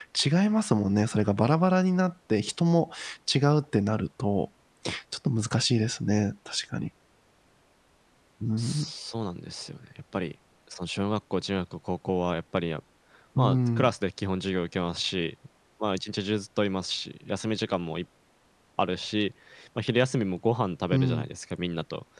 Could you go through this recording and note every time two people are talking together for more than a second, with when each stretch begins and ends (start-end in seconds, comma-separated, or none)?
none